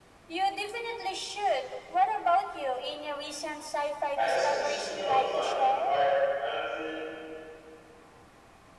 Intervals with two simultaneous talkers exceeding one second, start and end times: 4.2-5.9

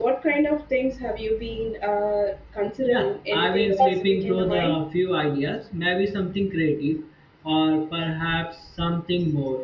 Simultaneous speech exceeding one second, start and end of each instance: 2.9-4.7

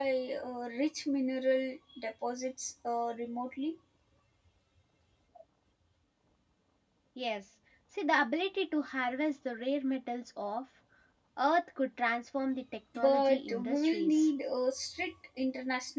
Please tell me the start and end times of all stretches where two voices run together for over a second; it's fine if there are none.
12.9-14.3

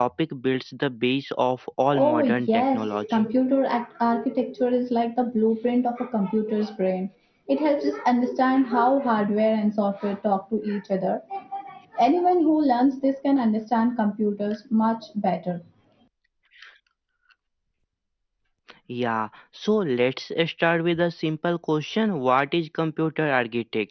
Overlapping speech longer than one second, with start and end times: 1.9-3.3

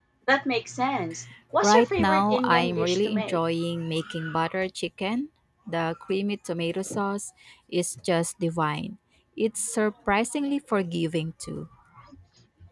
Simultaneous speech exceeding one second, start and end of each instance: 1.6-3.4

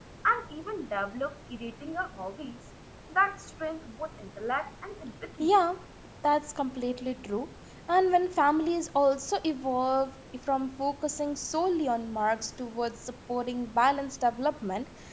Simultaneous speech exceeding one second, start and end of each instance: none

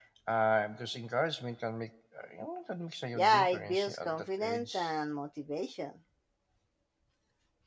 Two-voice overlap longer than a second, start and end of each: 3.1-4.9

